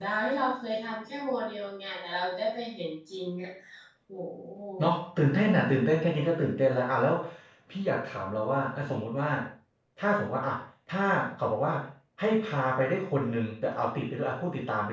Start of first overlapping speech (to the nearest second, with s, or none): none